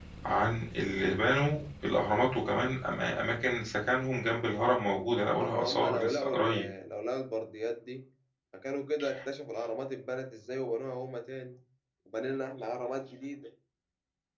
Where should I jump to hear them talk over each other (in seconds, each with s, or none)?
5.4 s